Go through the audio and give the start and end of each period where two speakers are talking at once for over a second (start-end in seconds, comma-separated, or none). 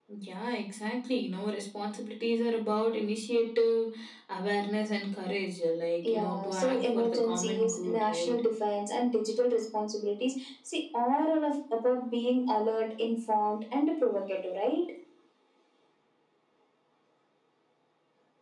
6.0-8.4